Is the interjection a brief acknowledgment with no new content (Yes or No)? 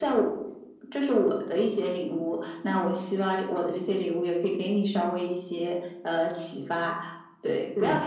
Yes